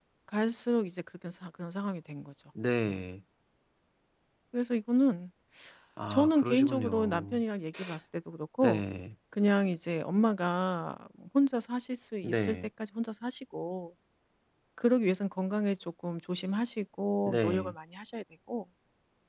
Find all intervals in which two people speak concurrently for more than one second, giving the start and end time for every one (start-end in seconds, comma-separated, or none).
6.1-7.4